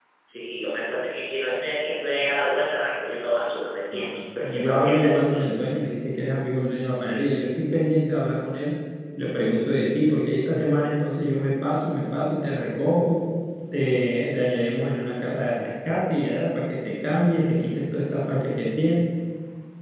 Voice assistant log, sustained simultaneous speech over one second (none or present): present